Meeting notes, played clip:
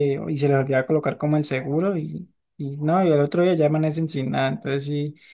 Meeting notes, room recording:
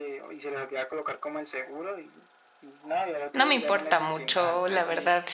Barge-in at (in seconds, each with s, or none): 3.3 s